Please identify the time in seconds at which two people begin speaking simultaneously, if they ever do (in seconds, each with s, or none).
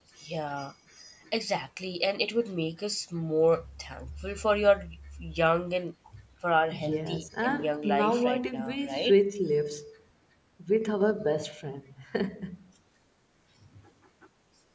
6.8 s